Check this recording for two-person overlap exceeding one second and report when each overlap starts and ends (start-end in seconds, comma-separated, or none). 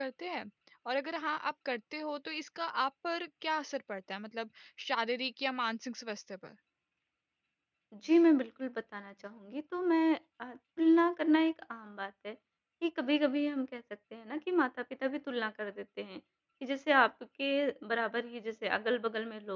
none